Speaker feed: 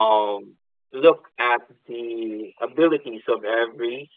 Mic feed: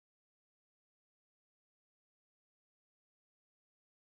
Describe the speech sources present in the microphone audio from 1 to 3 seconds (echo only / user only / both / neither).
neither